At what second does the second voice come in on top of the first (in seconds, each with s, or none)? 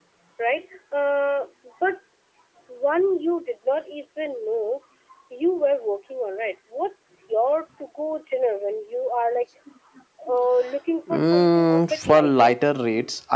11.1 s